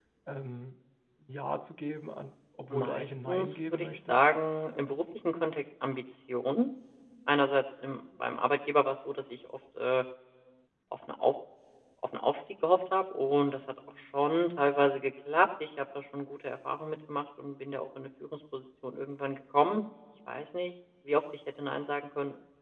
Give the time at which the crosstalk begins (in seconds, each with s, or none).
2.7 s